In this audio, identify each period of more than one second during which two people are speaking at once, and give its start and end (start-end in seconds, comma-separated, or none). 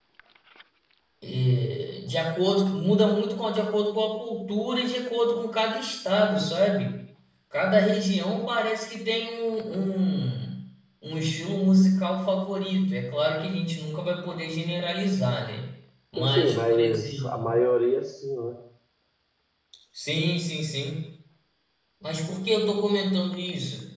16.2-17.6